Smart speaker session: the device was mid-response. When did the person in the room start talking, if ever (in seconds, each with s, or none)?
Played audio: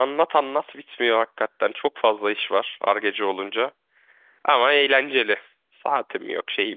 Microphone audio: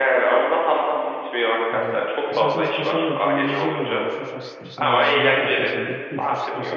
1.7 s